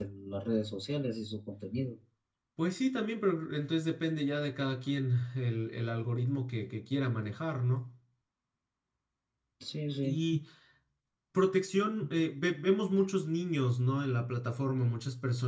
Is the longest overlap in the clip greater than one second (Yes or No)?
No